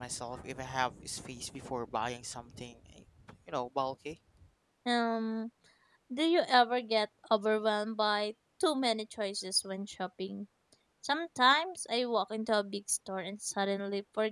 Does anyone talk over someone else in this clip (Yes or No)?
No